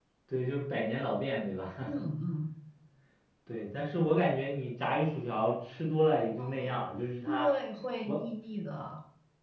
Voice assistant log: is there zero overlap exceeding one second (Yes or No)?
Yes